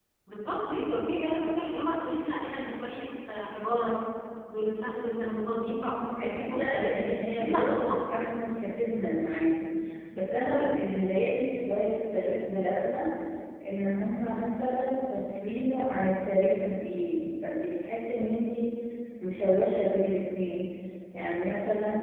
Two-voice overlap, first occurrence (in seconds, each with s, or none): 6.2 s